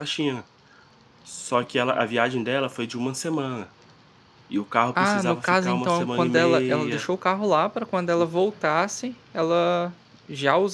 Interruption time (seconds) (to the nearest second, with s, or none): 5 s